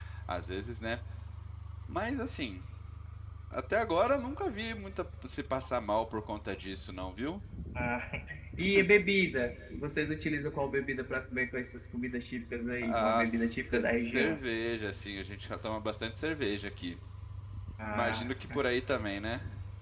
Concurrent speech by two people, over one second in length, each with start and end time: 12.8-14.4

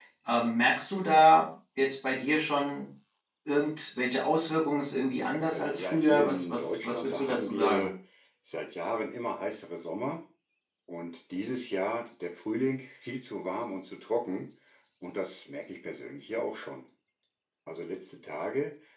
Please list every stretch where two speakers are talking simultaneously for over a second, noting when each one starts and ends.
5.3-7.9

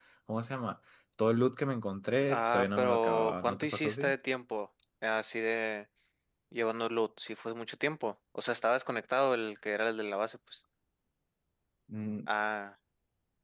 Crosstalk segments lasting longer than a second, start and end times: 2.3-4.1

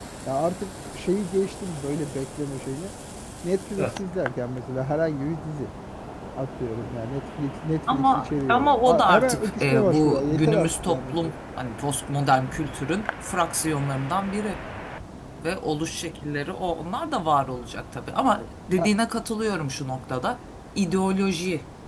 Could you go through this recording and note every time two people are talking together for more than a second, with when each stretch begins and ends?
7.9-11.3

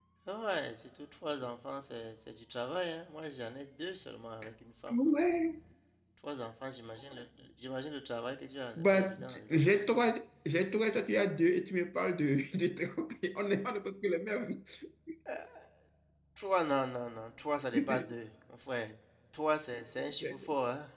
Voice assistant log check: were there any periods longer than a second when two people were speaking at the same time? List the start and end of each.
8.8-10.1

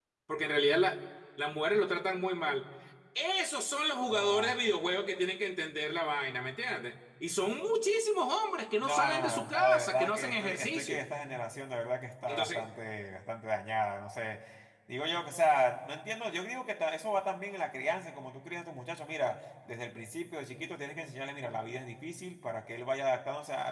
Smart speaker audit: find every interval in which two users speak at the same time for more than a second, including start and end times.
8.8-11.0

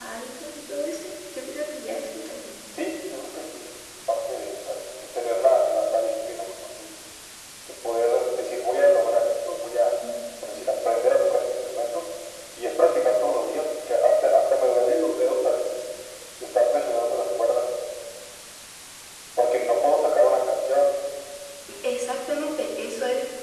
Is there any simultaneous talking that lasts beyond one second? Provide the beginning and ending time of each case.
none

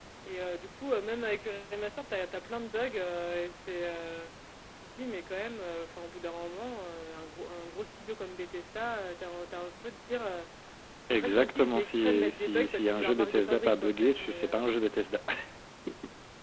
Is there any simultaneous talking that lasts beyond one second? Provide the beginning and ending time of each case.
11.1-14.6

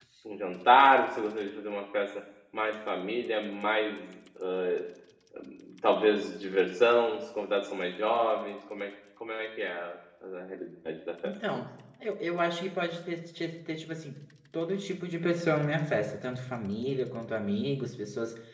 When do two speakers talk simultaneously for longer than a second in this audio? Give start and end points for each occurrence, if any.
none

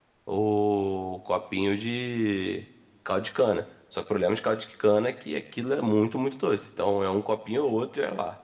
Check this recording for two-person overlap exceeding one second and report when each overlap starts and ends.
none

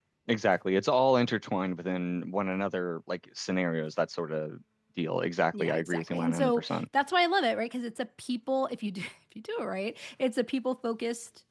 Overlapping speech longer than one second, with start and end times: 5.6-6.8

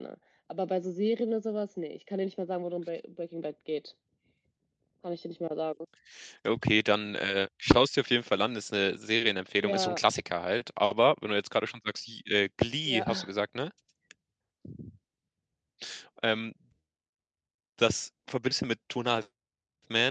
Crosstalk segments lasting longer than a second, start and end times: none

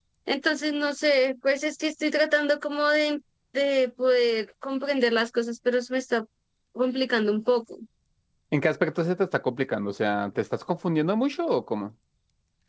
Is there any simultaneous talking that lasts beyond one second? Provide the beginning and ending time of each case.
none

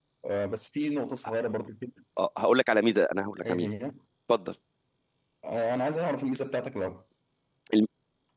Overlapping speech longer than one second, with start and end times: none

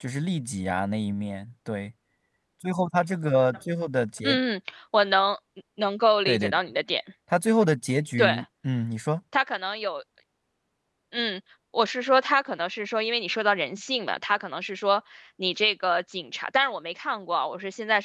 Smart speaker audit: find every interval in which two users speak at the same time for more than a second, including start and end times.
none

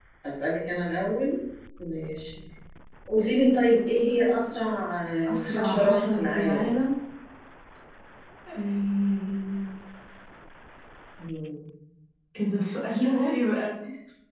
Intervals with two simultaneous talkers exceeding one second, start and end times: 5.3-6.8

